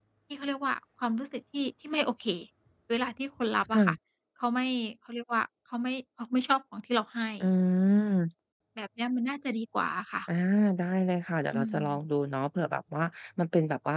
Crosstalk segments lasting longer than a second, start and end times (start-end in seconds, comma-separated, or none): none